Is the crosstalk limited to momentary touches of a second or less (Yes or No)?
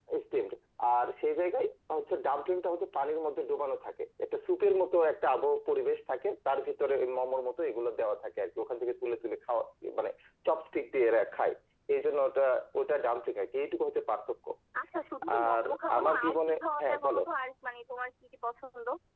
No